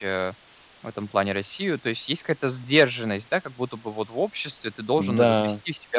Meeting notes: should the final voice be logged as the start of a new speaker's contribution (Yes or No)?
No